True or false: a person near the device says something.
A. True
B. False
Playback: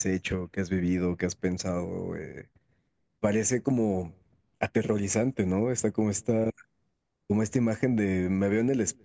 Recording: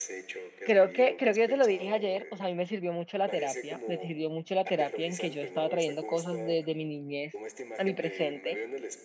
A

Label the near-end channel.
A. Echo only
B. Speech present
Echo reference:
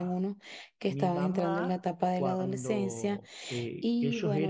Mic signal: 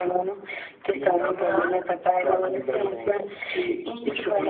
A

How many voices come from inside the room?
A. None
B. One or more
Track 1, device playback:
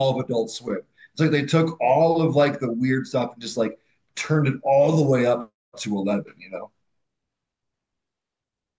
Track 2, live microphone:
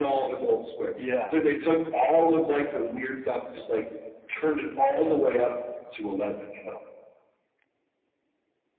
B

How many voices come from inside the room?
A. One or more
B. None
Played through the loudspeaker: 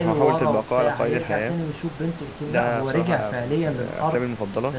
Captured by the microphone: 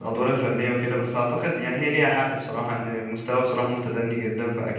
A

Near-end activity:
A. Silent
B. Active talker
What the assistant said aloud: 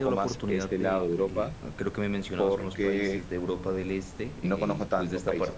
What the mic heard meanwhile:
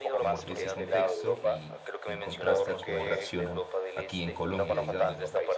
B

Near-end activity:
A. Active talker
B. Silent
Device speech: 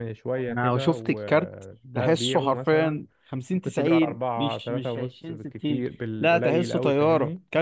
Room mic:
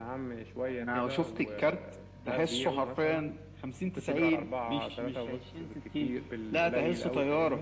B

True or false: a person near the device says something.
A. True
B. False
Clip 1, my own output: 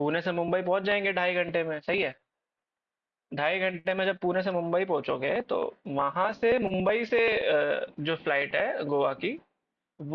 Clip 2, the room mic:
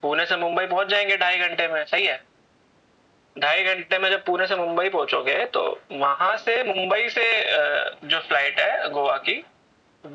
B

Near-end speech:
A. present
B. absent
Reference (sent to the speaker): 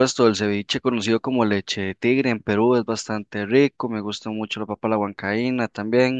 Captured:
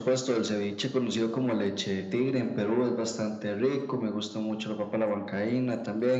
B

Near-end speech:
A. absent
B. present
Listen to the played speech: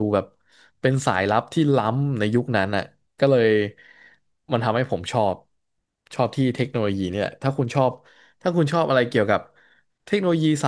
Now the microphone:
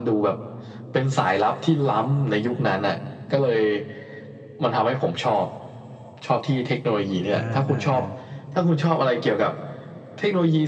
B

